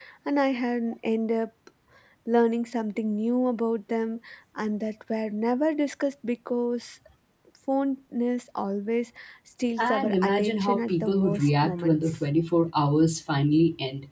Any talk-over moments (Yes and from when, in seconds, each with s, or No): Yes, from 9.8 s